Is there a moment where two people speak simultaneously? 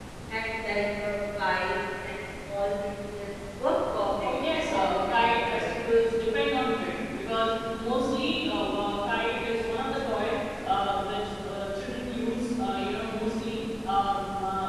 Yes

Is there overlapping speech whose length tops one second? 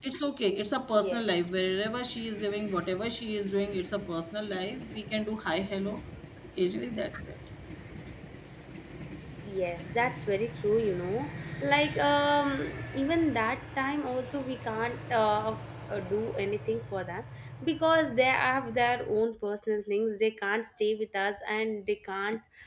No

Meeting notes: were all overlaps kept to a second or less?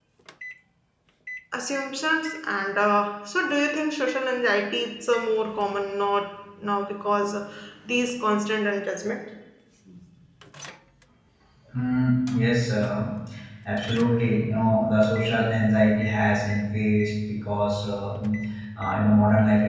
Yes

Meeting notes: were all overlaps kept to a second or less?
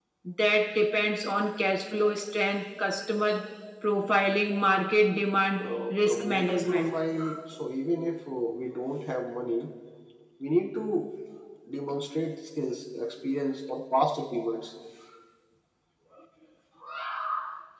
No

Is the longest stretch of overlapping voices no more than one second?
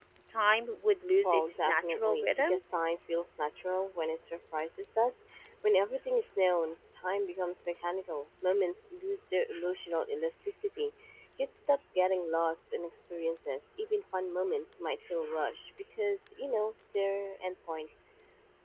No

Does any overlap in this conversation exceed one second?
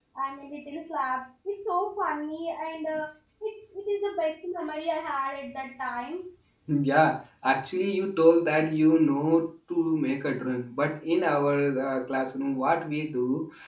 No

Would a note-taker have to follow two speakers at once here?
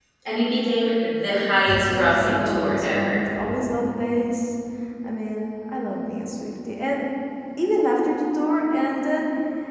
Yes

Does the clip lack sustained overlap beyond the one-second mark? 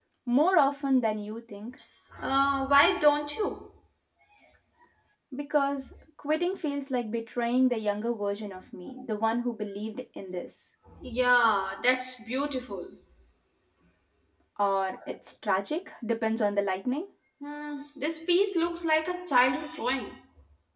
Yes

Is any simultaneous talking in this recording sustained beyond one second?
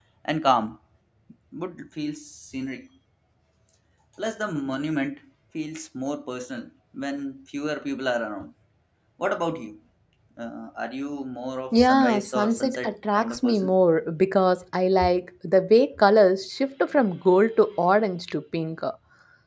Yes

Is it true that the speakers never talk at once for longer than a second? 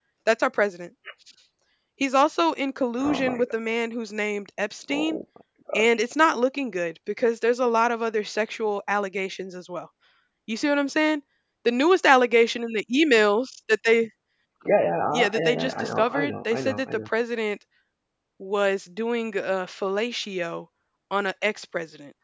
No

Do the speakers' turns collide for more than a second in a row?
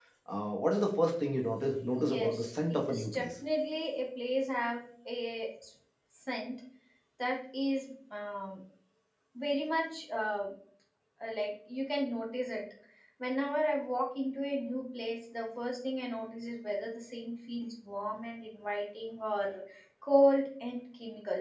Yes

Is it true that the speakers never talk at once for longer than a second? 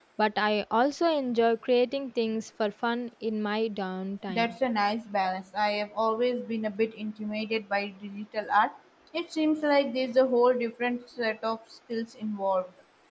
Yes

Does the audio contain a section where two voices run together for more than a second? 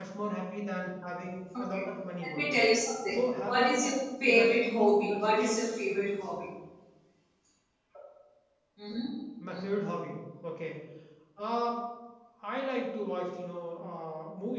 Yes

